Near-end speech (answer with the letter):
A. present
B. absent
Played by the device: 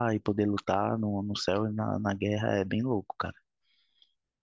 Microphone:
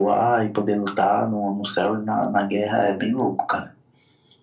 B